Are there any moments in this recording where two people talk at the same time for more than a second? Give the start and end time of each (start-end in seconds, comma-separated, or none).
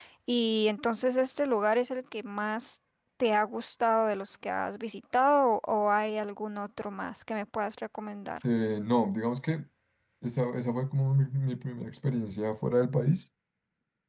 none